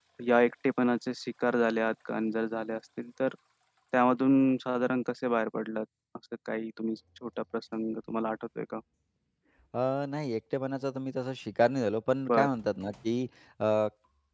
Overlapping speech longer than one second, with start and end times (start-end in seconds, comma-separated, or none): none